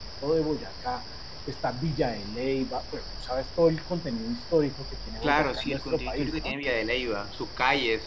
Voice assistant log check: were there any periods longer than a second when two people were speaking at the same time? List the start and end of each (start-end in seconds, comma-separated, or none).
5.2-6.5